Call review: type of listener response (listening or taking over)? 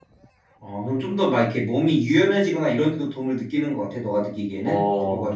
taking over